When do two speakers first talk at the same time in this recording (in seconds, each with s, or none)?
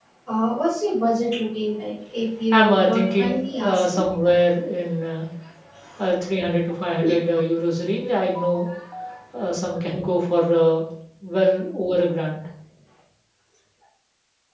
2.5 s